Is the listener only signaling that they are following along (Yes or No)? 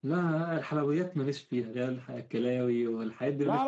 No